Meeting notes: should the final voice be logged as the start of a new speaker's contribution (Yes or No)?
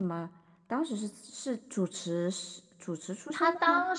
Yes